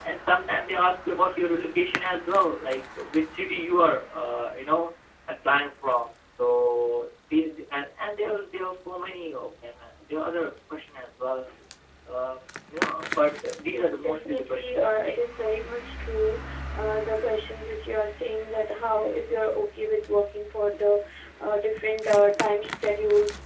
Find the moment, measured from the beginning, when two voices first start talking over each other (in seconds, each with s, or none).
13.7 s